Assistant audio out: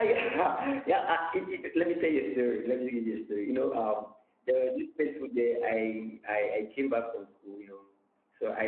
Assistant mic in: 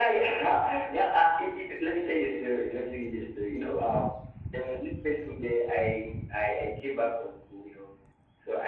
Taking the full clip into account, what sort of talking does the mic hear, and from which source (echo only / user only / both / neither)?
echo only